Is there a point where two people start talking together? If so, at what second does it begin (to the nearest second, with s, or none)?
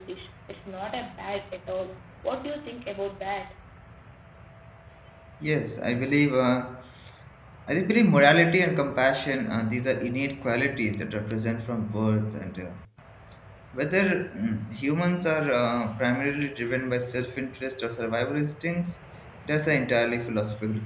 none